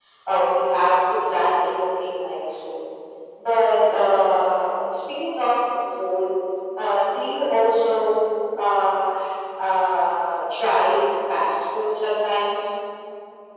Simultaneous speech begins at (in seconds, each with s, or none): none